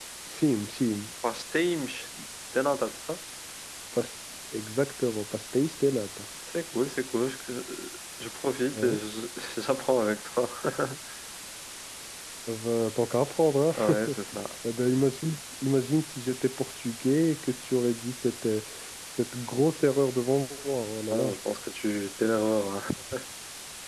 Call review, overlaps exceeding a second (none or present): none